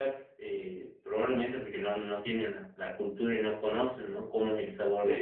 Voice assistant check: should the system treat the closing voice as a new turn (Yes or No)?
No